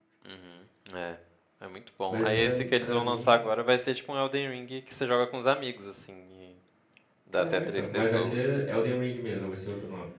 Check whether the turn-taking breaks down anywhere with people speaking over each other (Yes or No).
Yes